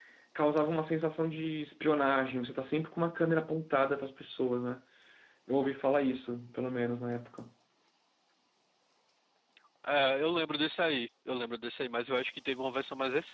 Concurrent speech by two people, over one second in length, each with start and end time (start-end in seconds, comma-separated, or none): none